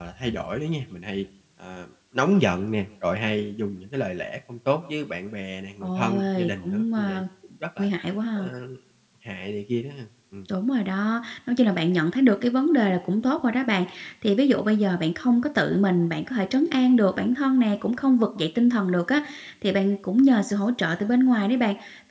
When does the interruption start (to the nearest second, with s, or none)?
6 s